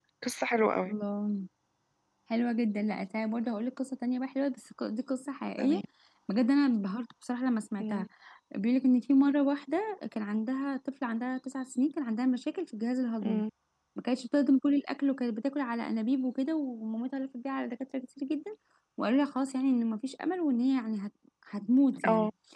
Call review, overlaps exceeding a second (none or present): none